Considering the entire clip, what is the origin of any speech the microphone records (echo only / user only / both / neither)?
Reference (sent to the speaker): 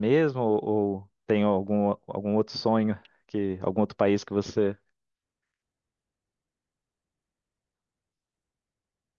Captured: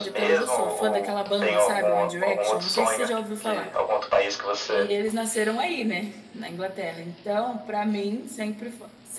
both